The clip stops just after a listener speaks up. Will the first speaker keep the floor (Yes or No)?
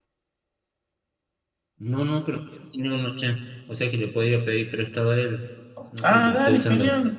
No